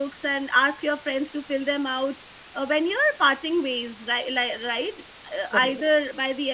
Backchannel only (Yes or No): Yes